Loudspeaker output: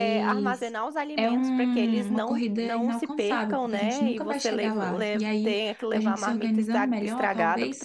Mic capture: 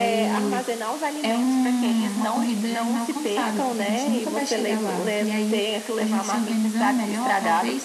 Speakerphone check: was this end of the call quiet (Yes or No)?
Yes